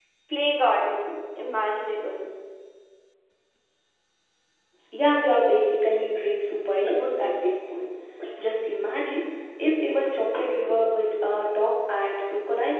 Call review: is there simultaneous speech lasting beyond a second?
No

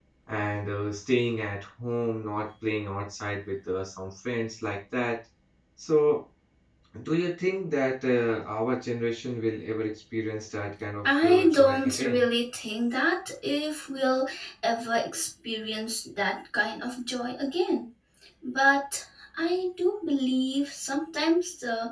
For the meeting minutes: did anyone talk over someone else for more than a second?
Yes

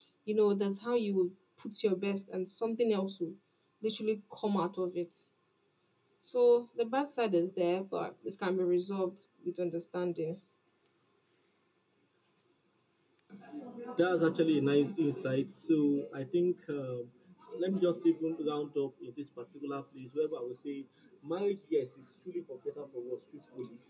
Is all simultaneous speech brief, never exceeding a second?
Yes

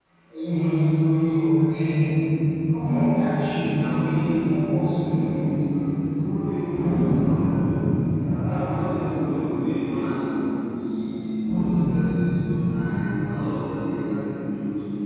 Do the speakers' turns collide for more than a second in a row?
Yes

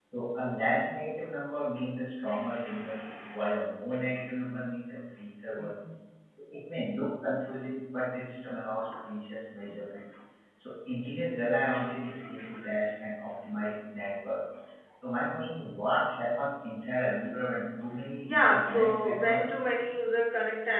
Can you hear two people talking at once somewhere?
Yes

